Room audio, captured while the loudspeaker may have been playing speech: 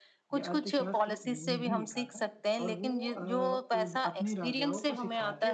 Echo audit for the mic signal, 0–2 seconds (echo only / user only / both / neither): both